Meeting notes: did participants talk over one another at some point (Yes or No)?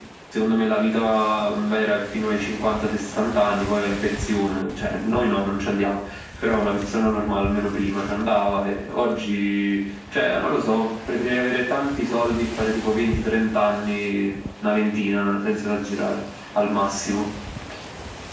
No